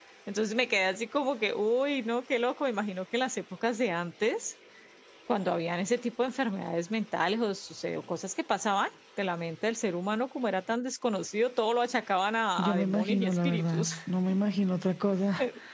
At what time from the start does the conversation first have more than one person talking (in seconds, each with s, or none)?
12.6 s